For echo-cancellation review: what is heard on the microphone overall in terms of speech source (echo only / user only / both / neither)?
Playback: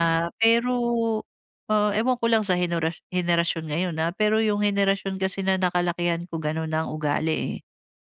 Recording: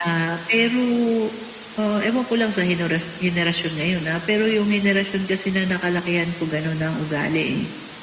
echo only